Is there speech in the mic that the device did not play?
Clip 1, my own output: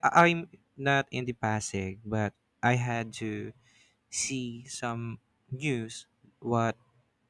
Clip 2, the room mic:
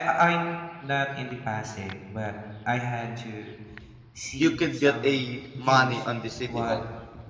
Yes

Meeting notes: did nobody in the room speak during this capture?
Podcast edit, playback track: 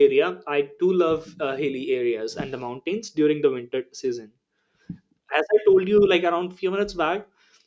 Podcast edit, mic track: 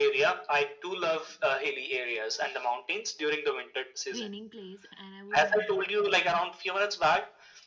No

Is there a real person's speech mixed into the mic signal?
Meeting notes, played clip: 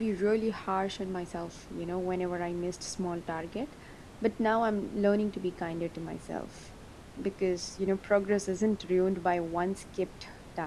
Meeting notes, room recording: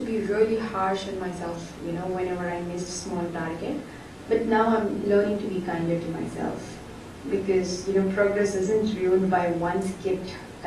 No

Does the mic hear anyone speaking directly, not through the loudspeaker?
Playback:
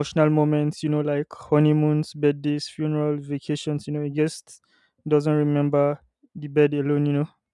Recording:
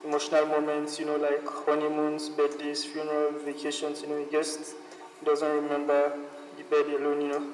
No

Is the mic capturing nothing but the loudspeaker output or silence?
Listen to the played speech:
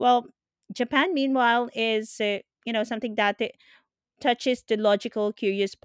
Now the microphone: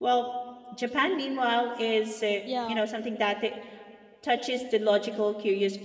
No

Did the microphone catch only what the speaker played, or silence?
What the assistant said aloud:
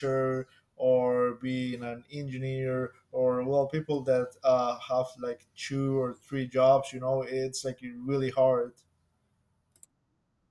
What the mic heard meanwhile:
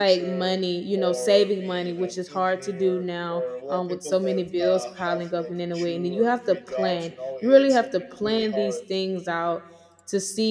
No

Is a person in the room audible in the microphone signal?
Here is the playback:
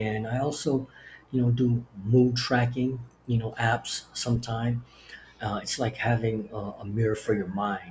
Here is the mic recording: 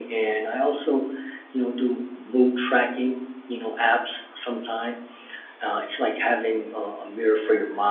No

